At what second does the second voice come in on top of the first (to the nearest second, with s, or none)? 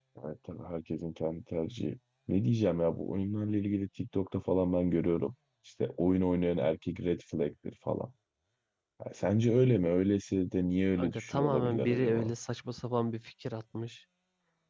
11 s